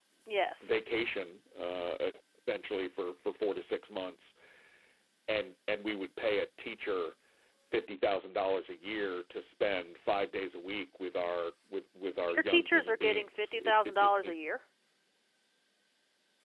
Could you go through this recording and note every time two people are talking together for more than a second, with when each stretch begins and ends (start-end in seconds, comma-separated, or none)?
12.3-14.2